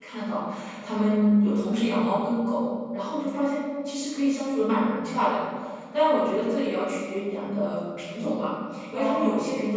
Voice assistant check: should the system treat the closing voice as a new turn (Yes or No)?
No